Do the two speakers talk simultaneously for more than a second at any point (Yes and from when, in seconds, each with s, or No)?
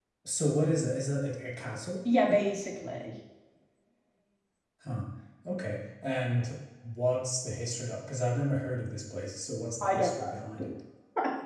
No